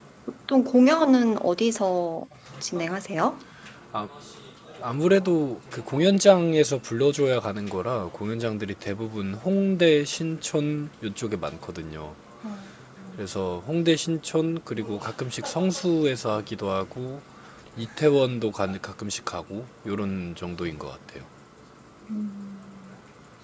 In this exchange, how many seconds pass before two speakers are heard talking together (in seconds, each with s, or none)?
none